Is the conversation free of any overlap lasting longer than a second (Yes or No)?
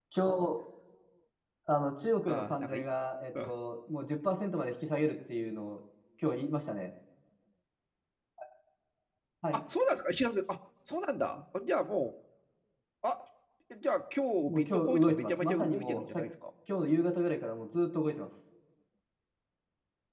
No